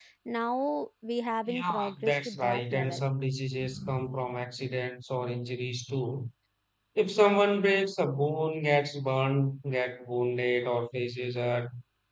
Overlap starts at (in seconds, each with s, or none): 1.4 s